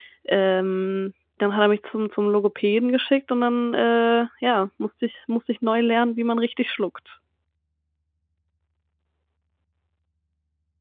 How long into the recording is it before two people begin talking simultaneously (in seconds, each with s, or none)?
none